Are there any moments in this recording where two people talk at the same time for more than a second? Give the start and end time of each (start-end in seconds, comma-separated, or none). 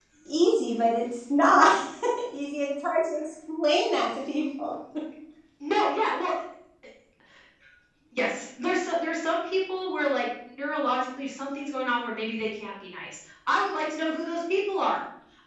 none